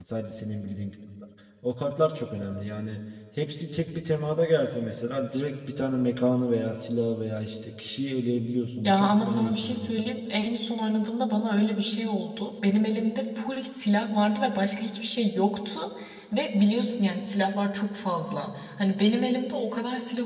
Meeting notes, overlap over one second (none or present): present